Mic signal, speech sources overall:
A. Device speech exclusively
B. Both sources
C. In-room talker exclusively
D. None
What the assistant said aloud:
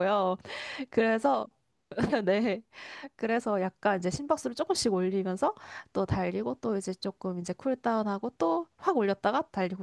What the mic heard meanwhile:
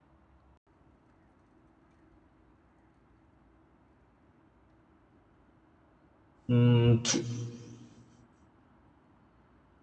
C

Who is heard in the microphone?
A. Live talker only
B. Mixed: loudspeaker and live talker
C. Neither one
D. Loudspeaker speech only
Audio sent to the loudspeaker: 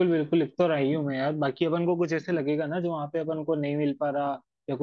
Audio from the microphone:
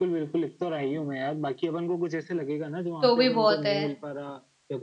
B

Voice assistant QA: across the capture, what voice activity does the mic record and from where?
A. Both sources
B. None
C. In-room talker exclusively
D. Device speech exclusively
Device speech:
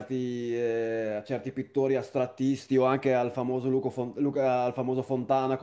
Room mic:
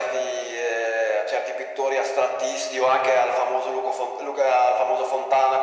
D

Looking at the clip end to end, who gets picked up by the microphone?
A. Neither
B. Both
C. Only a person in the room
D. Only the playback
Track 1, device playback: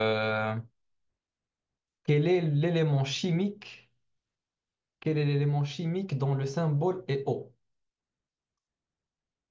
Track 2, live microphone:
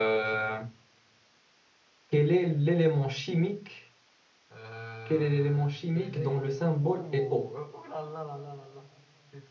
B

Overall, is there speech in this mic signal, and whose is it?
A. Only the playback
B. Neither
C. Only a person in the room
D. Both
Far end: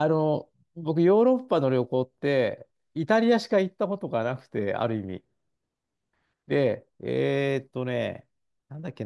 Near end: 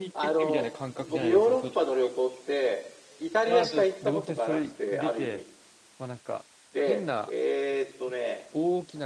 D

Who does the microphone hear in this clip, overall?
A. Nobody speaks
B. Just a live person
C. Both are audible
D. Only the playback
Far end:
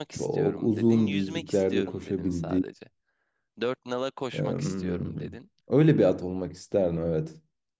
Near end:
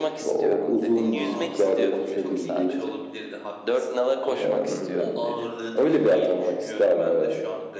C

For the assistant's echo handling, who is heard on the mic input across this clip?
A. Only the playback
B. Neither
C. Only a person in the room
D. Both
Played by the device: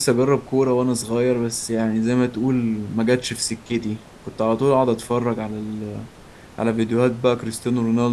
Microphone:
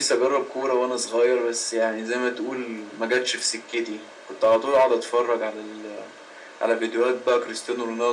A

